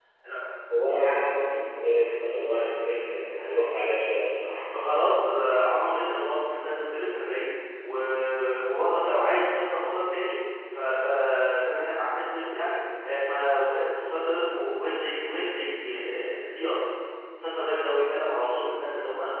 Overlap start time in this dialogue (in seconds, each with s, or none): none